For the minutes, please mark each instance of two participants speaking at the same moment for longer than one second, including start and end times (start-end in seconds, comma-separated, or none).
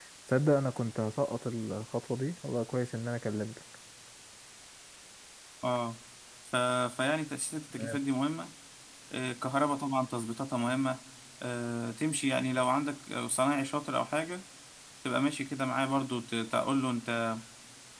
none